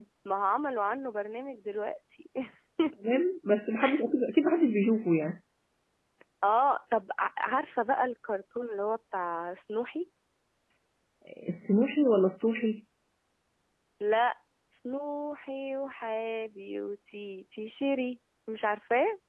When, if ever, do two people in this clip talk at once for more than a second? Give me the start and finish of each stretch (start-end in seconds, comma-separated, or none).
none